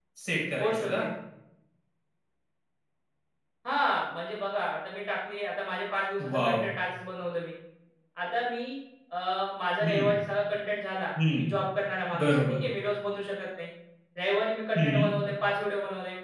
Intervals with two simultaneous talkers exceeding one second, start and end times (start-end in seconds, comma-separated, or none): none